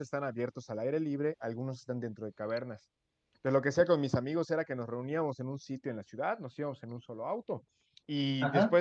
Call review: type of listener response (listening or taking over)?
listening